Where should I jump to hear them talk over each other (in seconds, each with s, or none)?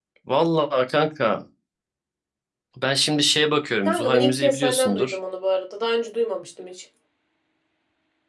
3.9 s